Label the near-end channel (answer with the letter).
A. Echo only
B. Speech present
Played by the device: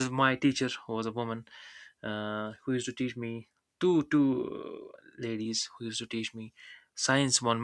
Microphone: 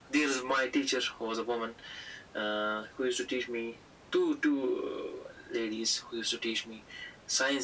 A